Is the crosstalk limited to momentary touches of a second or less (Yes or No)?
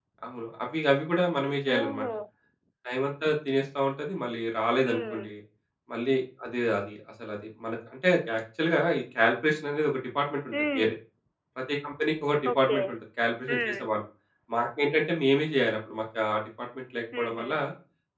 Yes